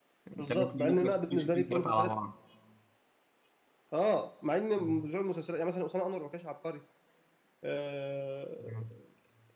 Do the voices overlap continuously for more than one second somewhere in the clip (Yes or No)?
Yes